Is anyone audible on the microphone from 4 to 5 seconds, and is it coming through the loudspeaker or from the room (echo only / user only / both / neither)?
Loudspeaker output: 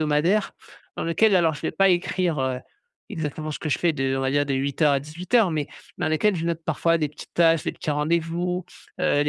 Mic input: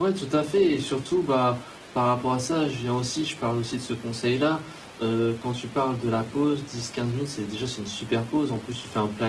user only